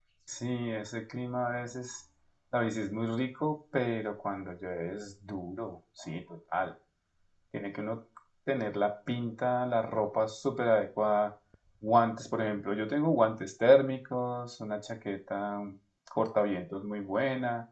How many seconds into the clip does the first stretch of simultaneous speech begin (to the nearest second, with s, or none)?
none